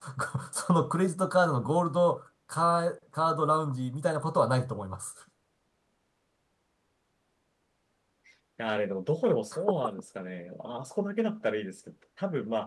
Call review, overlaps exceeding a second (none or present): none